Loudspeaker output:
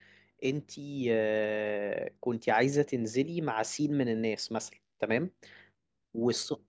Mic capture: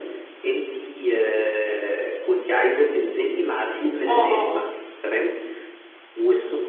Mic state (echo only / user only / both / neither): both